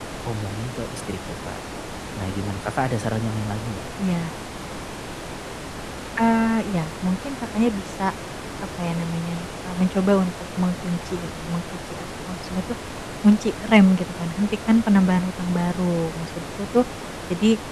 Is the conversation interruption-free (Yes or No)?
Yes